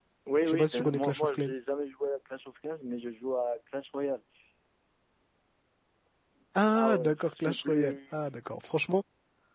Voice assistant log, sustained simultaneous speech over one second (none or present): present